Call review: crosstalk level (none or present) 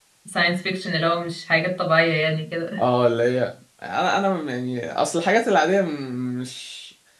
none